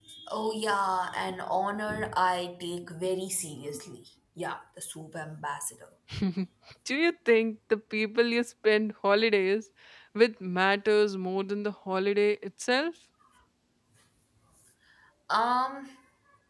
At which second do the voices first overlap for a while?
none

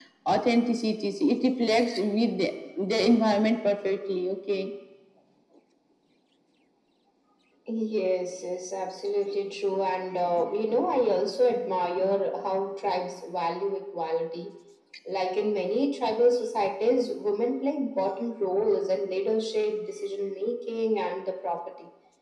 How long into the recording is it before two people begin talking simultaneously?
none

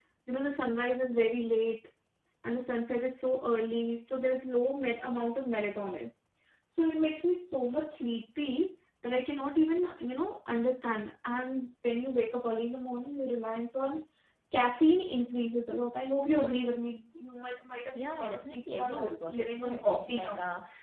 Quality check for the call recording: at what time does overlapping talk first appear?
18.0 s

